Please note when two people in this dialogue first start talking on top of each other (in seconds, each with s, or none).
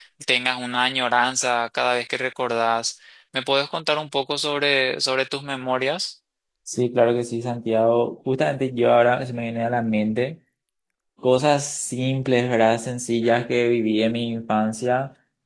none